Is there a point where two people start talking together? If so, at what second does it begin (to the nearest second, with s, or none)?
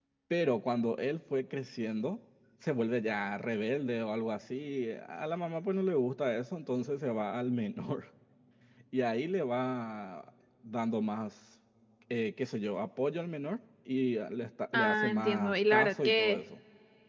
15 s